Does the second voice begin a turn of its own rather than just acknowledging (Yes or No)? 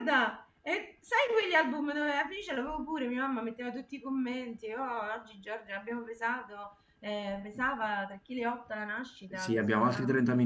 Yes